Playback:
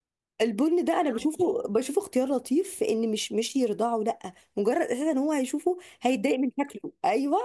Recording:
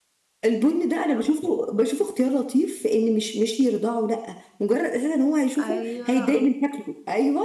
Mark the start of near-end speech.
5.6 s

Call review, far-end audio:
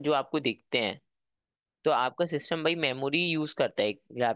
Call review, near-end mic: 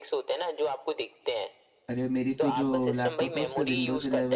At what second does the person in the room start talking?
1.9 s

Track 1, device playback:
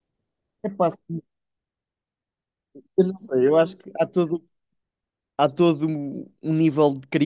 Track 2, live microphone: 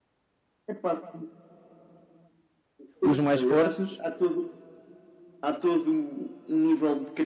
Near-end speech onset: 3.0 s

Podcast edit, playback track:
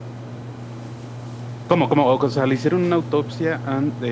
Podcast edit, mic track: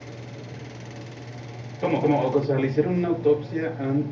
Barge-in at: none

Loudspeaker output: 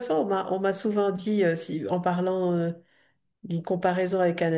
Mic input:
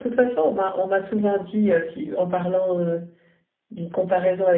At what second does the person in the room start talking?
none

